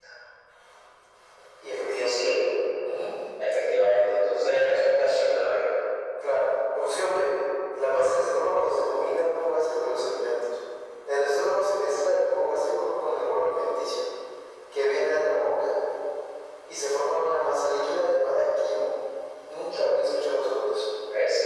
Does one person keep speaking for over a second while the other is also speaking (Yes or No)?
No